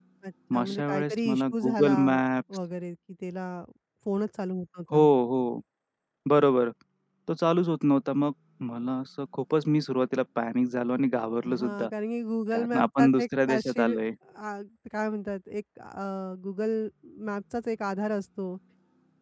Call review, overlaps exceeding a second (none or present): present